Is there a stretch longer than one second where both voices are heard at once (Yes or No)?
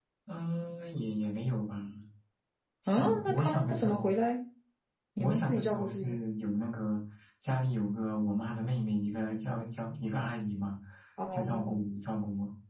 Yes